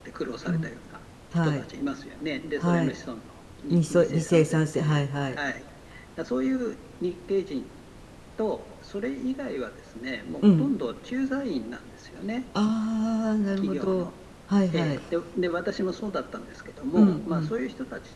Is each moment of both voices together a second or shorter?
No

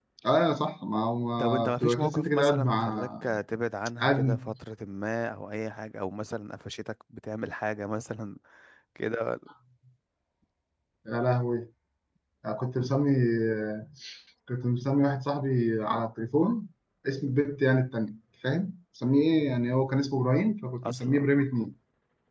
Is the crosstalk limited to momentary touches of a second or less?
No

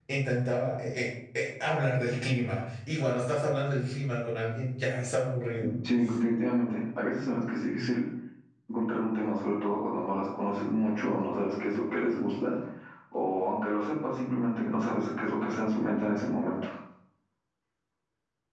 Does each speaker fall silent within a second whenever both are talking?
Yes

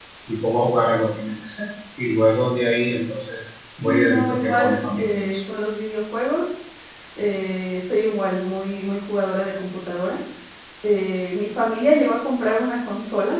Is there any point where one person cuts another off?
Yes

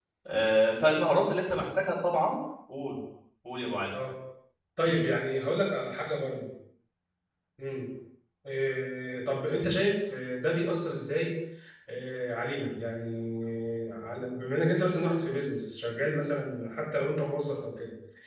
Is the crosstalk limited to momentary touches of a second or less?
Yes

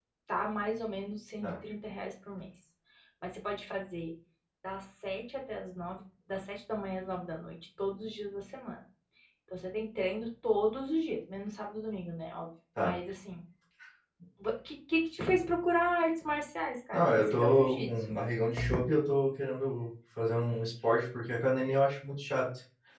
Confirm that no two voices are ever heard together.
No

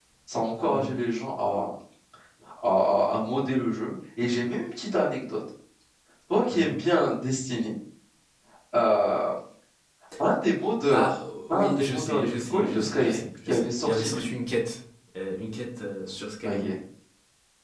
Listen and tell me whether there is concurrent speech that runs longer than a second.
Yes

